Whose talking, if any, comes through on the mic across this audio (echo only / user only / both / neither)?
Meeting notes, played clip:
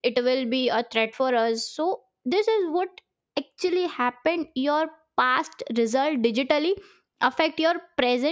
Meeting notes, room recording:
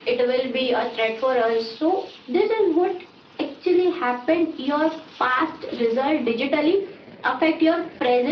echo only